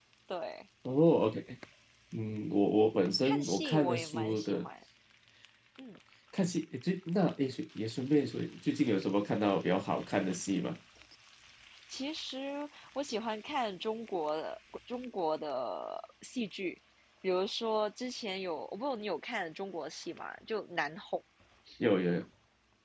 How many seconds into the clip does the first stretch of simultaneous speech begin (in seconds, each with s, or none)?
3.2 s